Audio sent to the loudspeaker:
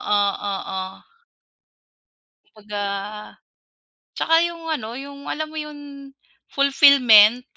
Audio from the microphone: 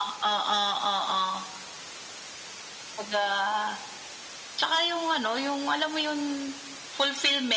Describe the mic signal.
echo only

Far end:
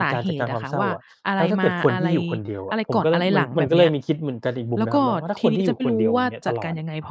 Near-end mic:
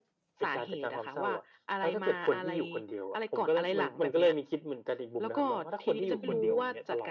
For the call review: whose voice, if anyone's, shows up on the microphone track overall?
both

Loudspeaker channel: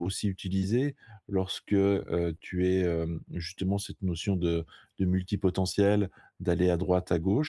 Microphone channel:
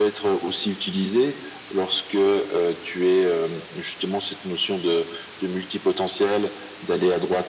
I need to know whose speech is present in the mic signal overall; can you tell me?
echo only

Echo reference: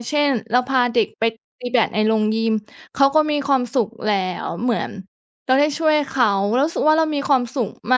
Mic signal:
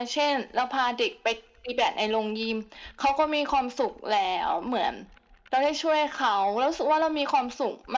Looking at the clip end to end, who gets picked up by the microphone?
echo only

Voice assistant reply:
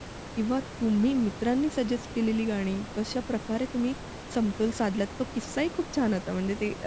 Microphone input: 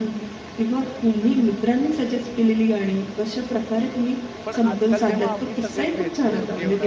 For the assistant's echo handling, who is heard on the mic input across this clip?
both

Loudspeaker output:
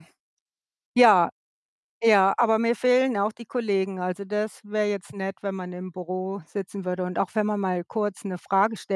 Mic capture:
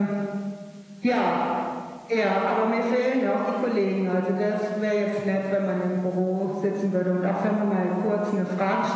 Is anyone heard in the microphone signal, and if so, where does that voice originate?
echo only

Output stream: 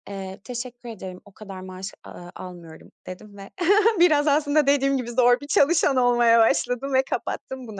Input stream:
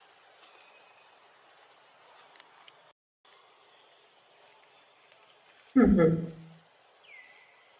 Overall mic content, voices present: user only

